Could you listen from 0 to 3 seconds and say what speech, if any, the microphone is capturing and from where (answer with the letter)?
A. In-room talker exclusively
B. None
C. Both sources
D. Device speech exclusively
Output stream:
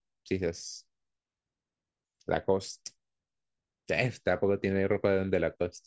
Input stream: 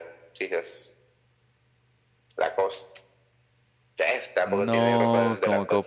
D